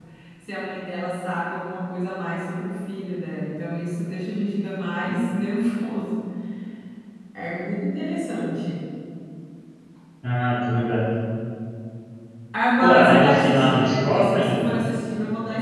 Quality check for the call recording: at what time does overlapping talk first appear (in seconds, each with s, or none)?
12.8 s